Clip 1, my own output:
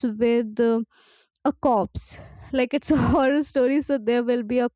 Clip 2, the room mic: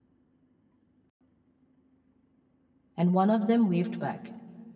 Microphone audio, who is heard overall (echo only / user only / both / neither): user only